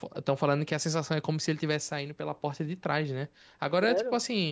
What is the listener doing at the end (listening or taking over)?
listening